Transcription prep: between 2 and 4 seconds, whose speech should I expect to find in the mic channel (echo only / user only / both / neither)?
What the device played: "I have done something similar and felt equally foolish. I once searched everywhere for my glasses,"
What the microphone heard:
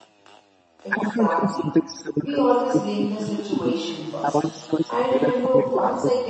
both